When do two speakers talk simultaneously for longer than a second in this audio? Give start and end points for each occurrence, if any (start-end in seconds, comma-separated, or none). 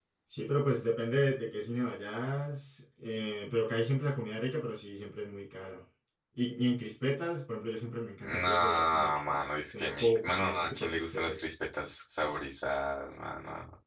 8.2-11.5